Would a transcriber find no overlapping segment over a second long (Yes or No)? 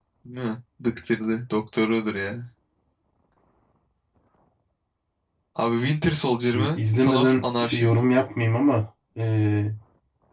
No